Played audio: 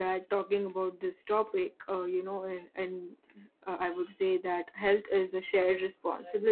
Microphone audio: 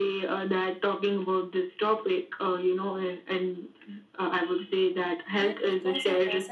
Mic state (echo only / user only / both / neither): both